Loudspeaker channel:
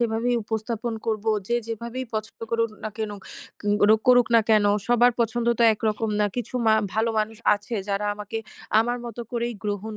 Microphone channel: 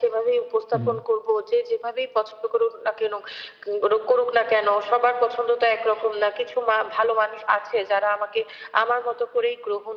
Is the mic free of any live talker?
No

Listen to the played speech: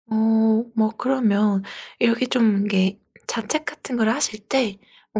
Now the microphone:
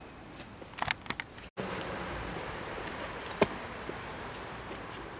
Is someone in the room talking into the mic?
No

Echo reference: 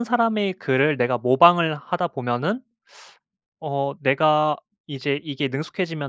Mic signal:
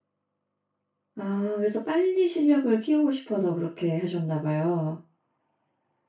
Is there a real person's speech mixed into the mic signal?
Yes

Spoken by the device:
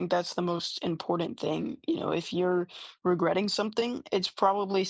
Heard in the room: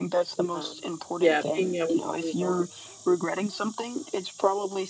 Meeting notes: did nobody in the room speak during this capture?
No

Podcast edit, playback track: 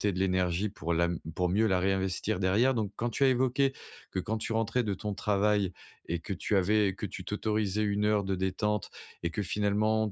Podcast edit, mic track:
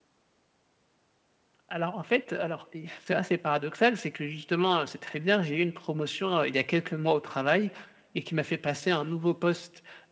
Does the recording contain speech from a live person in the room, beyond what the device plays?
Yes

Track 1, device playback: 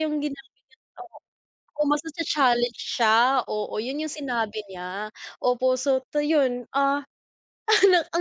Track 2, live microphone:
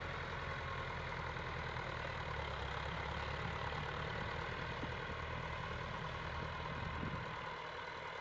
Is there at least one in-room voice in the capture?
No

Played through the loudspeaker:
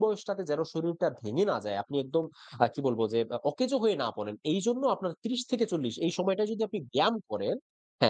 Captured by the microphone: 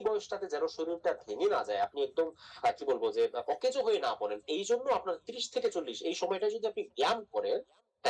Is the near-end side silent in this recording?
Yes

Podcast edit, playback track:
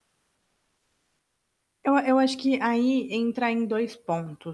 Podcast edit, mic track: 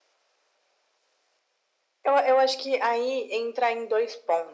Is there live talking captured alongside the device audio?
No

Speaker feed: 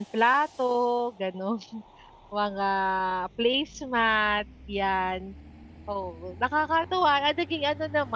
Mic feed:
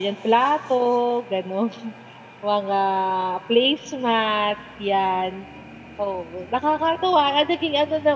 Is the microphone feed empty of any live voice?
Yes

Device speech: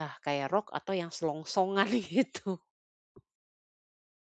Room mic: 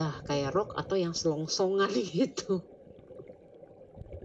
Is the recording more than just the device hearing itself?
No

